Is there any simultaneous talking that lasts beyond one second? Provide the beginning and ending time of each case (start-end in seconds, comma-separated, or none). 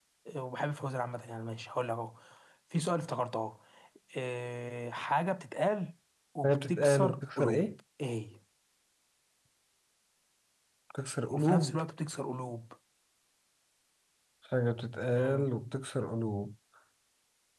6.5-7.7